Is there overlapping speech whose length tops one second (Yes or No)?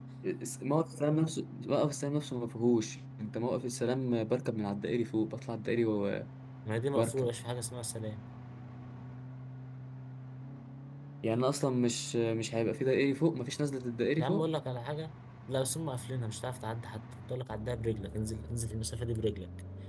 No